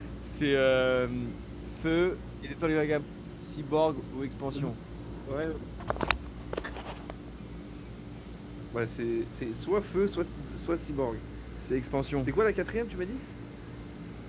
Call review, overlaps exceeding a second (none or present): none